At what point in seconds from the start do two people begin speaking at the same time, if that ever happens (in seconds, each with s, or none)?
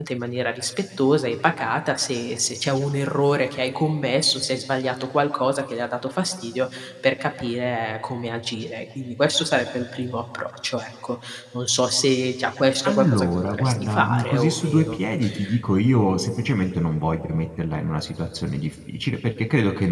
12.8 s